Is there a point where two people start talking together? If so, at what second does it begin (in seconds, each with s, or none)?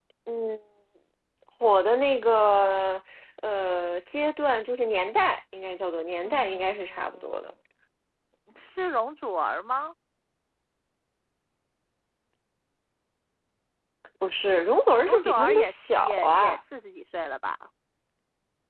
6.2 s